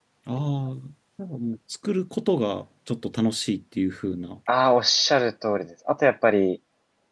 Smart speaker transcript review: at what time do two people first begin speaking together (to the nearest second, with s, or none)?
none